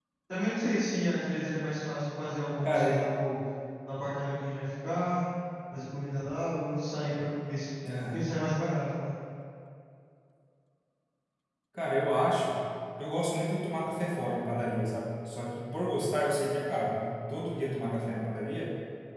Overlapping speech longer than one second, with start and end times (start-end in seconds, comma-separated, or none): none